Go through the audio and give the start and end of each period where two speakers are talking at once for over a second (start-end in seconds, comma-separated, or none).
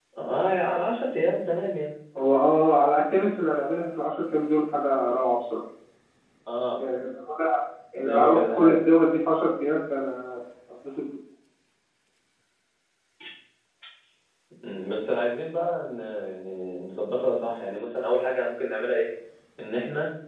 7.9-9.2